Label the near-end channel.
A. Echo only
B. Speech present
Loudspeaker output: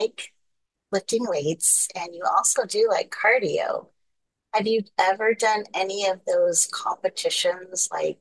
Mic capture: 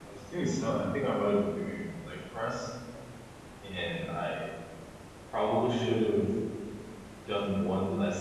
B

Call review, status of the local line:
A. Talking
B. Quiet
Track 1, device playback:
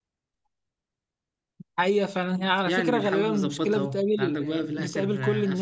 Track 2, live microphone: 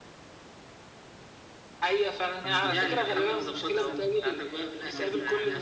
A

